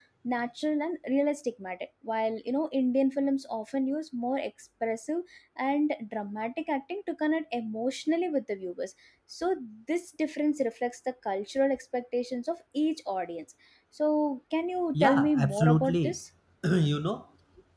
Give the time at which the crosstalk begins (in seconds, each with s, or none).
14.9 s